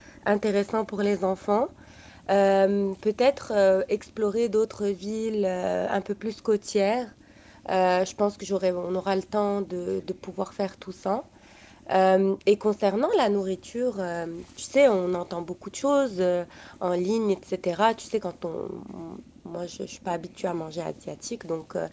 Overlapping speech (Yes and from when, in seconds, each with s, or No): No